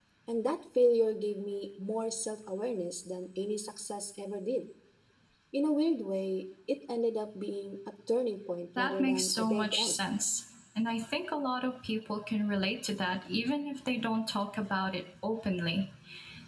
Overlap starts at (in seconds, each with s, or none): 8.8 s